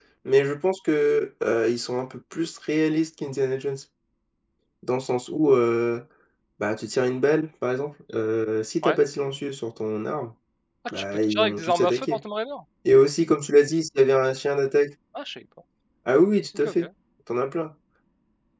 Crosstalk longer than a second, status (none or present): present